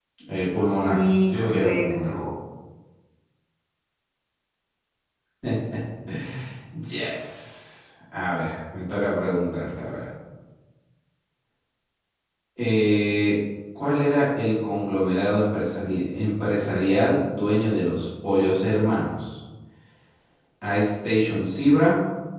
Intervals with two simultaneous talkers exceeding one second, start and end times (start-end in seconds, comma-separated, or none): 0.6-2.1